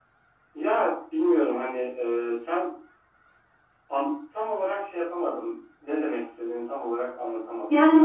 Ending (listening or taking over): taking over